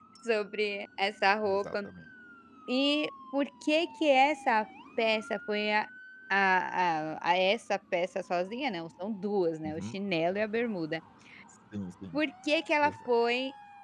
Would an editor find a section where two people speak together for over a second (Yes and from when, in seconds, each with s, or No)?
No